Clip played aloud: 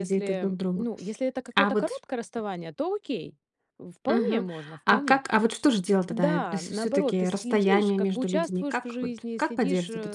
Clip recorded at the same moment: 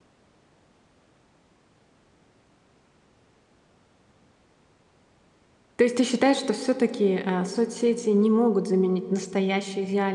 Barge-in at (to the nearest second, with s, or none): 6 s